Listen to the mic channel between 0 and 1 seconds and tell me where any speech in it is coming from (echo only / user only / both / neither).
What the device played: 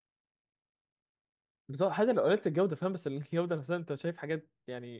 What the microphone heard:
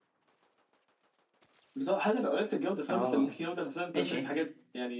neither